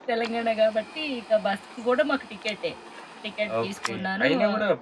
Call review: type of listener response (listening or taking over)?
taking over